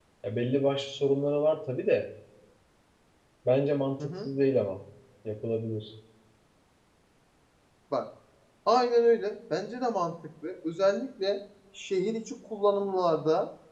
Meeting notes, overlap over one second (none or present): none